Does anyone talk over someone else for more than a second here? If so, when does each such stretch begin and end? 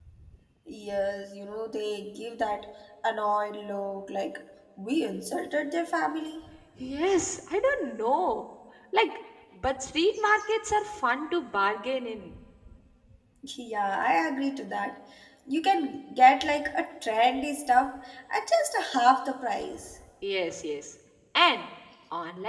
none

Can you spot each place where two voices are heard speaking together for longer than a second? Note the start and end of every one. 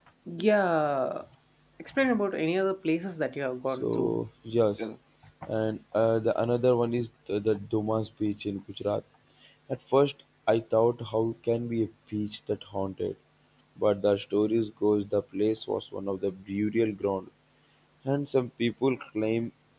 none

